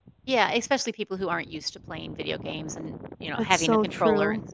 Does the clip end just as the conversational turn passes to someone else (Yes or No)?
Yes